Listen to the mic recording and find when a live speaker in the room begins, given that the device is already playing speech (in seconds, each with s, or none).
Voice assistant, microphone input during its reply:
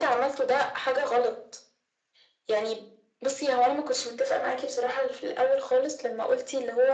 none